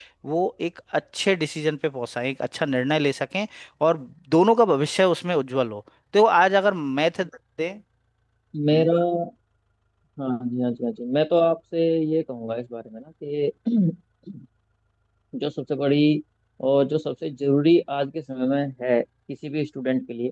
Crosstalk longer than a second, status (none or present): none